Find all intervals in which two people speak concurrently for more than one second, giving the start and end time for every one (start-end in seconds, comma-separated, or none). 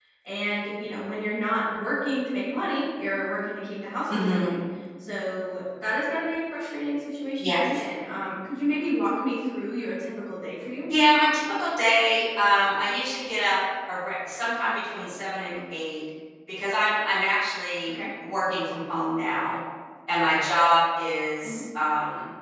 none